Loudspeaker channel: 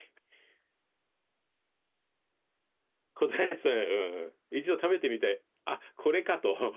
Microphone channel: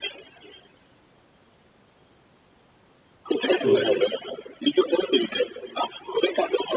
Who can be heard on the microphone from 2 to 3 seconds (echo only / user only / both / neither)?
neither